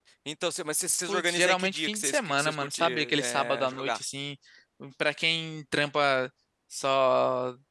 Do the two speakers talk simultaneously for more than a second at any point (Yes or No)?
Yes